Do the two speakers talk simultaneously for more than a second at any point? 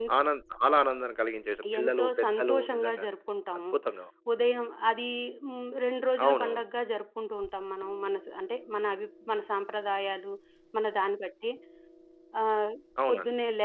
Yes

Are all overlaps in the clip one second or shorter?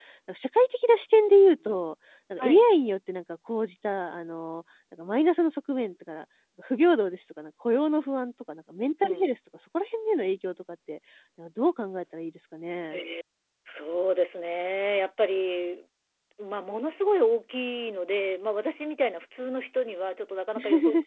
Yes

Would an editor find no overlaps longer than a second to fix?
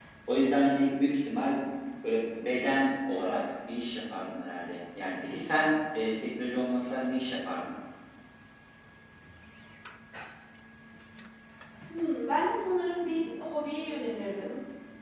Yes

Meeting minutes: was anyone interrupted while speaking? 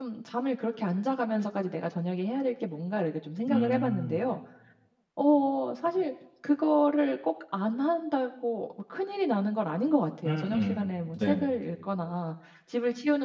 Yes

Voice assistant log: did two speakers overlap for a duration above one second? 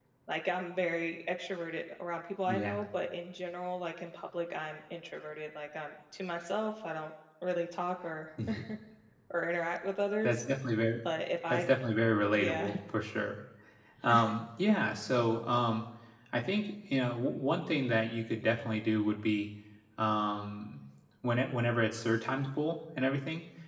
No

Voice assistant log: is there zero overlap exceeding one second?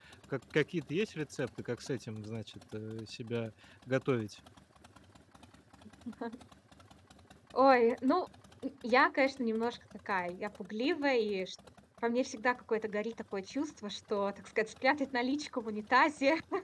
Yes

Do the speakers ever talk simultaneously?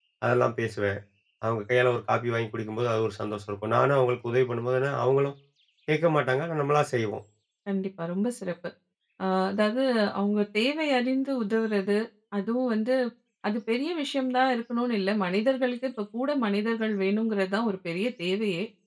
No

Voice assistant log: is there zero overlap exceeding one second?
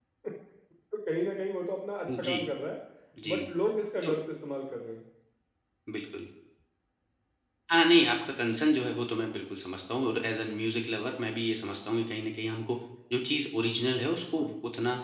Yes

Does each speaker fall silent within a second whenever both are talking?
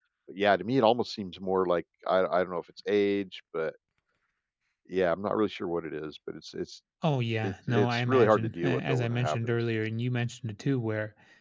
No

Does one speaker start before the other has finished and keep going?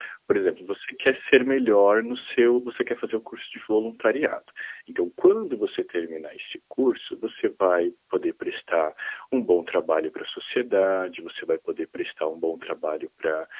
No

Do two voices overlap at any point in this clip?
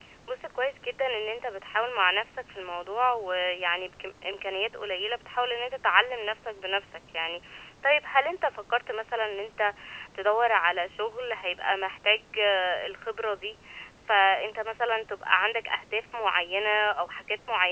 No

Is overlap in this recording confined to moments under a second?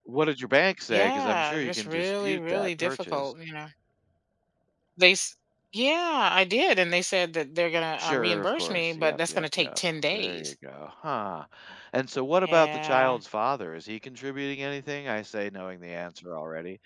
No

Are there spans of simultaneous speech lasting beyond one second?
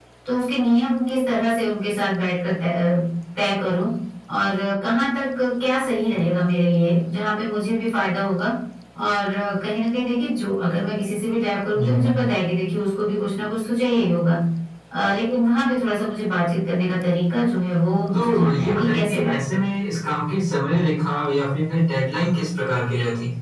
Yes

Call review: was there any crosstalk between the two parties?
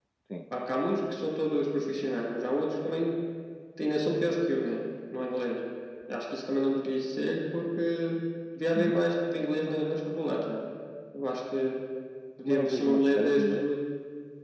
Yes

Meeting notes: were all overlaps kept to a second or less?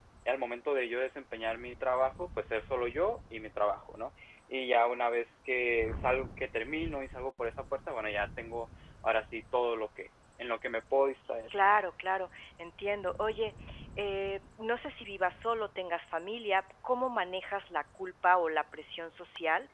Yes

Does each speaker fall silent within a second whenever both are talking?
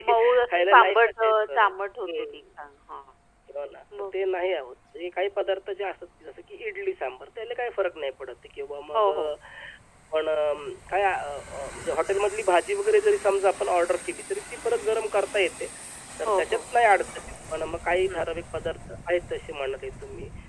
No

